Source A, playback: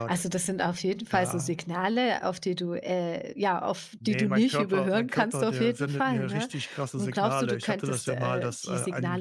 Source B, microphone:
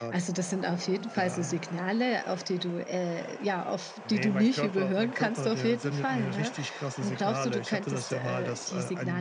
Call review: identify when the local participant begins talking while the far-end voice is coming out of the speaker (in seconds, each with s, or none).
none